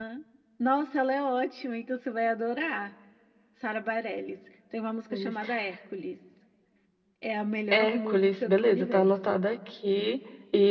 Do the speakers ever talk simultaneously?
Yes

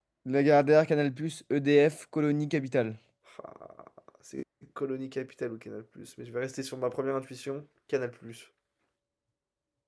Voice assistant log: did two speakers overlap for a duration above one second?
No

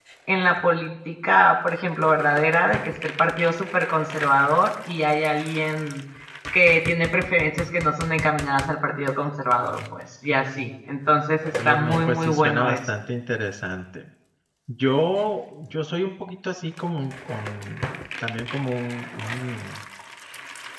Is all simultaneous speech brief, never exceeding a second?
No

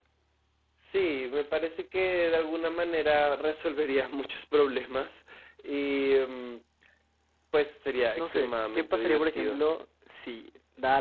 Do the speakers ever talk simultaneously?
Yes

